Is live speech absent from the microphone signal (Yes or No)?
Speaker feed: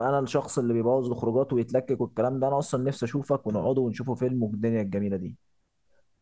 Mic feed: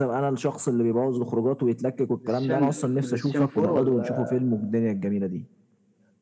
No